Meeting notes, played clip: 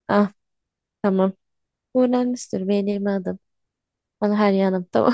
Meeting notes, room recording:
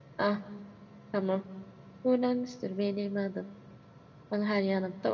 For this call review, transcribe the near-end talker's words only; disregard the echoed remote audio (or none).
none